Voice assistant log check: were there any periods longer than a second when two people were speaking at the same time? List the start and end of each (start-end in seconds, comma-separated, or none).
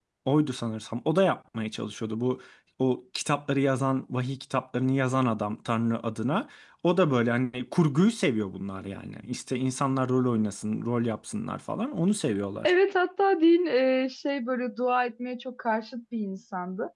none